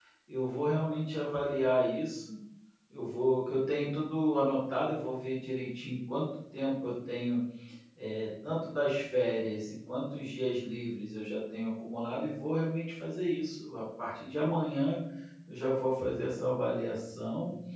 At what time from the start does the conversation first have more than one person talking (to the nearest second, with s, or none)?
none